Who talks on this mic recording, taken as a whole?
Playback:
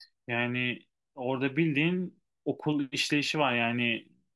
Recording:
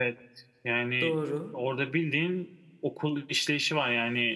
both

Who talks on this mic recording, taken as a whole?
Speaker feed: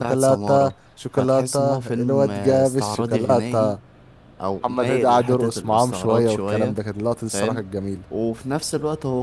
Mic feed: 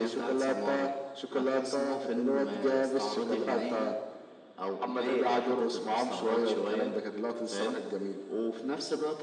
echo only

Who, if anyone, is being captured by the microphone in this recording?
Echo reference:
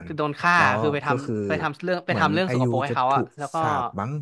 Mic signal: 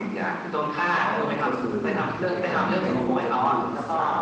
both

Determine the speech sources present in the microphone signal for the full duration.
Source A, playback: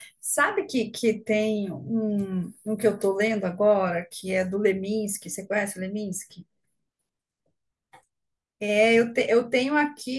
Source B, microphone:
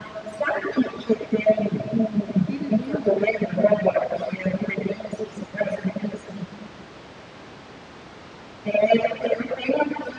both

